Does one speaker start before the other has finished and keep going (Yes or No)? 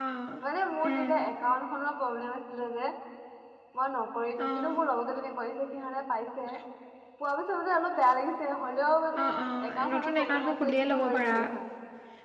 Yes